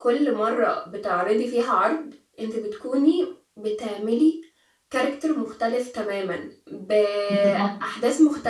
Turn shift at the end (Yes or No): No